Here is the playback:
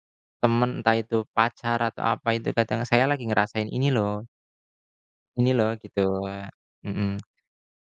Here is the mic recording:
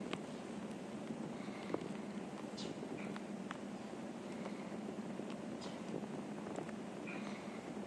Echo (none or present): none